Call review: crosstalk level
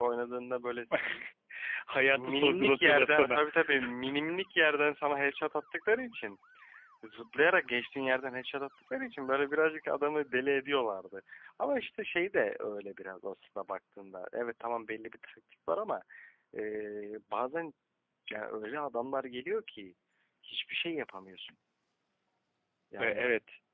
present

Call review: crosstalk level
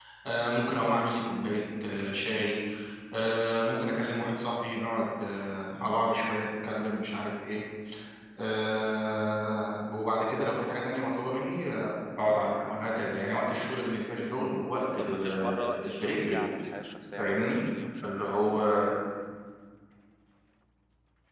present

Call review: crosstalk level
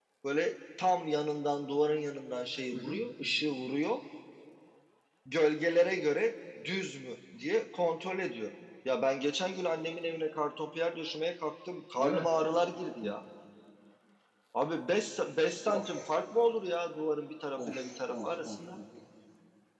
present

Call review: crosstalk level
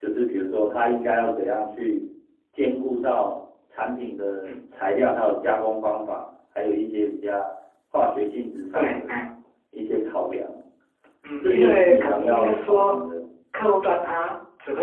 present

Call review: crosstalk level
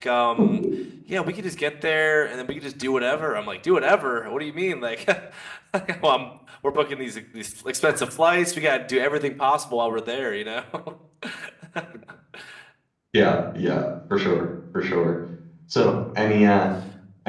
none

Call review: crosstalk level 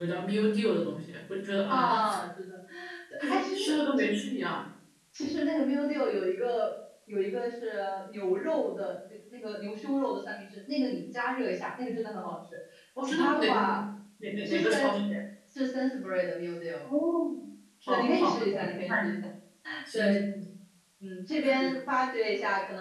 present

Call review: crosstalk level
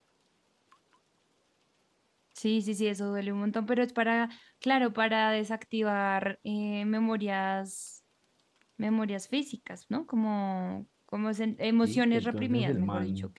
present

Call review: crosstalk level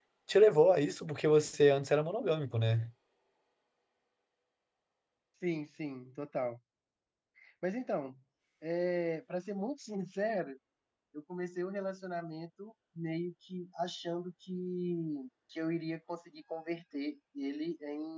none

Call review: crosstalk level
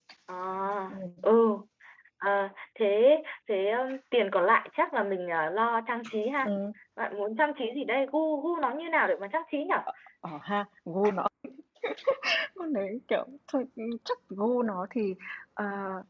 none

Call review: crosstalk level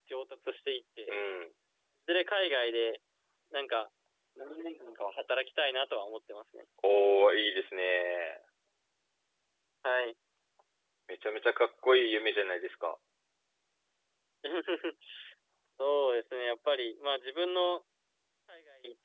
none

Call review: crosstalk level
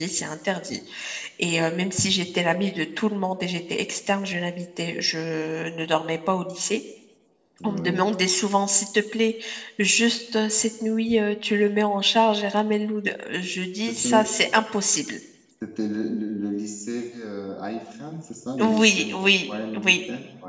present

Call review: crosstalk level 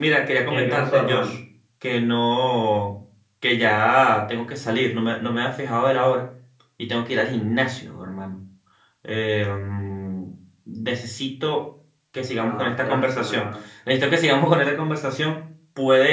present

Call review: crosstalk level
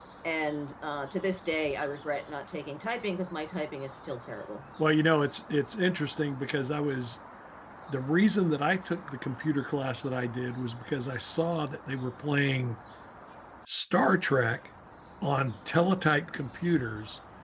none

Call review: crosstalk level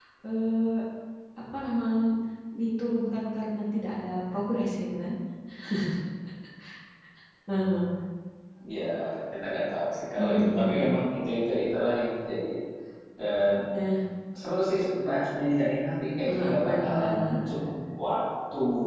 present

